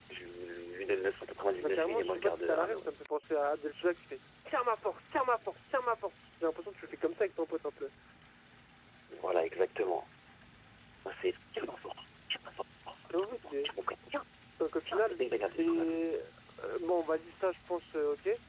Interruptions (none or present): present